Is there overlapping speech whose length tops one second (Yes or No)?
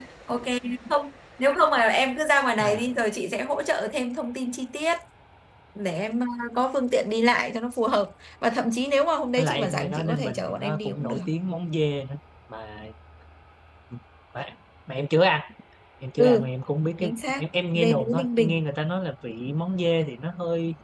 Yes